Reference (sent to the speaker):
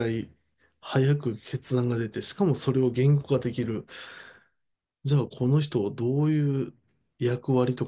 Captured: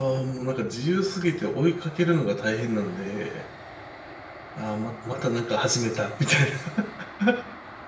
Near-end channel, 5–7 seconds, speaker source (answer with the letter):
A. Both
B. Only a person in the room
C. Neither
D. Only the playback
B